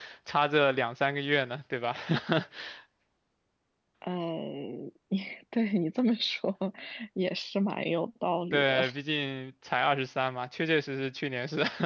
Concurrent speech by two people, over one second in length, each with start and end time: none

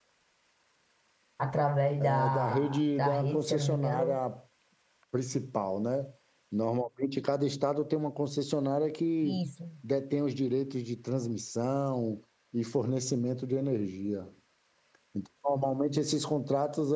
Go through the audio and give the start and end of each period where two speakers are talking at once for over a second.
2.0-4.1

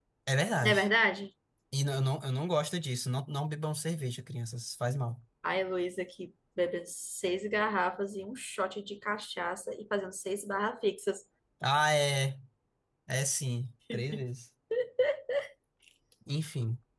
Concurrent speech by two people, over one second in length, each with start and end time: none

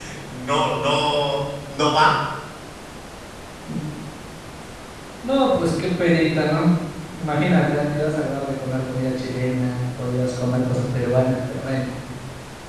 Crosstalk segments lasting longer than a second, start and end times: none

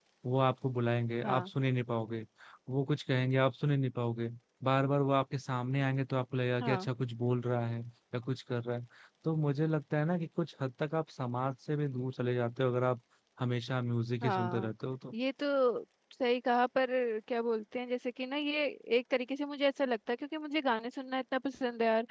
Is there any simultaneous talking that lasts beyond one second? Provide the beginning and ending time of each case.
none

